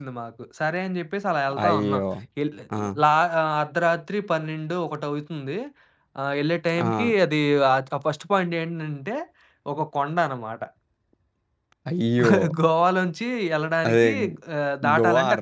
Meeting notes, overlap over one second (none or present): none